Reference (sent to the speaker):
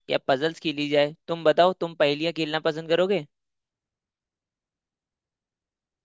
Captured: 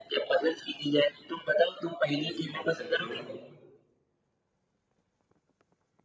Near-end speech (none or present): present